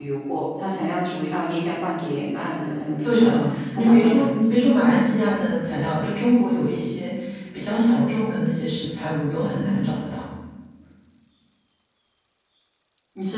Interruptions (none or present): present